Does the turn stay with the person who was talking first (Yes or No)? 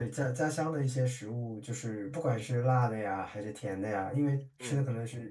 Yes